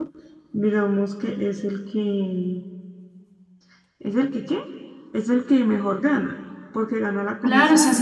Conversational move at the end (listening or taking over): taking over